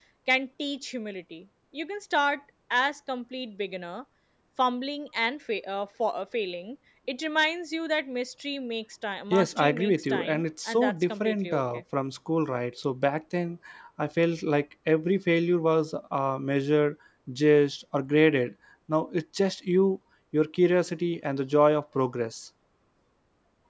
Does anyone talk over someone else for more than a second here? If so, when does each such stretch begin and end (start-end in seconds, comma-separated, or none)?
9.3-11.8